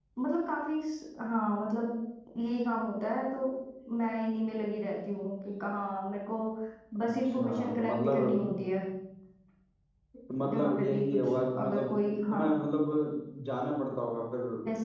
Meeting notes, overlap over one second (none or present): present